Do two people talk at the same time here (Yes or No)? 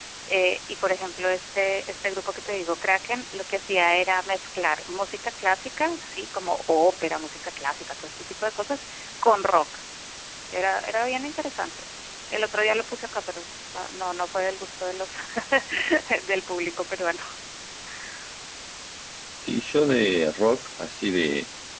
No